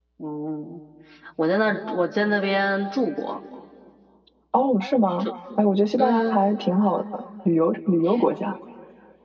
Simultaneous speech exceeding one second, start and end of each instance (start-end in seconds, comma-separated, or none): none